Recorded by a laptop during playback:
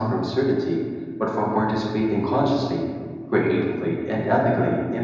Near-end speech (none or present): none